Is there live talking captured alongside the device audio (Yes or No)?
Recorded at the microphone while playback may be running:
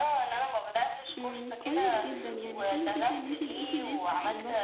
Yes